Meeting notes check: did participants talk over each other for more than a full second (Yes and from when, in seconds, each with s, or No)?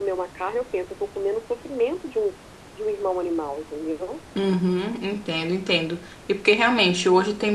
No